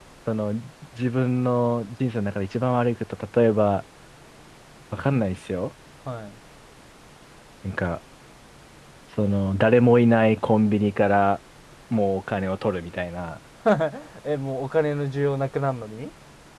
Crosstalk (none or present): none